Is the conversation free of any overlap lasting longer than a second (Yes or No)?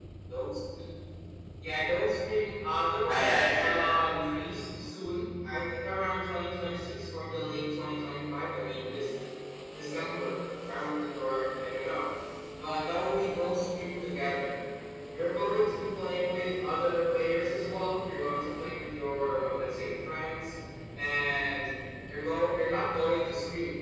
No